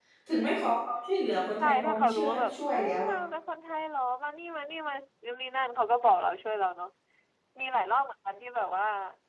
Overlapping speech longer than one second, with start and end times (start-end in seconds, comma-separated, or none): 1.6-3.1